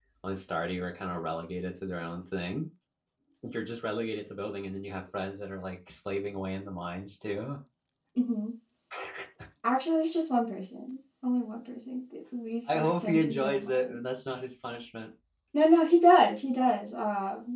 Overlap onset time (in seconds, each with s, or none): 12.7 s